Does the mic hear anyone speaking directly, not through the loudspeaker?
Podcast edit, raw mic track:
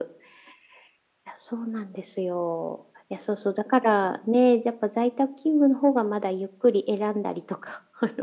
No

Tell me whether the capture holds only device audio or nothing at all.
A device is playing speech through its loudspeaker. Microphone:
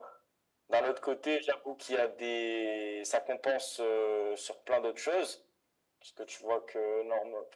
Yes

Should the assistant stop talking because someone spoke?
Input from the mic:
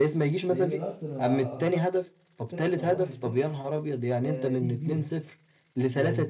Yes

